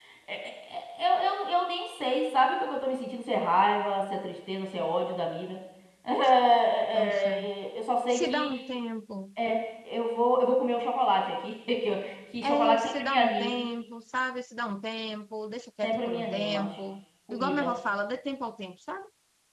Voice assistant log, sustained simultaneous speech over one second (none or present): present